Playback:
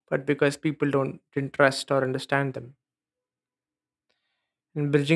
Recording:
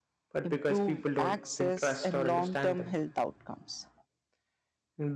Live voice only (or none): improved access and long-term health outcomes